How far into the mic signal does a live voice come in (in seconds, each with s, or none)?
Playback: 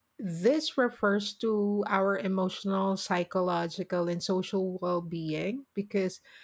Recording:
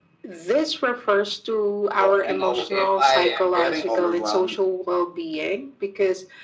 2.0 s